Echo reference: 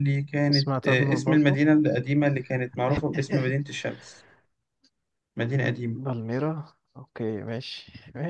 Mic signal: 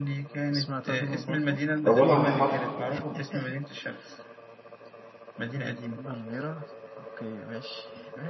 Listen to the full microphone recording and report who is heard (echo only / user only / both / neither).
both